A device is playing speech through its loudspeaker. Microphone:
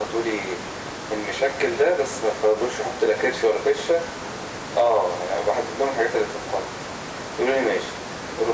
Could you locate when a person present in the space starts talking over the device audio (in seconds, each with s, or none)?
none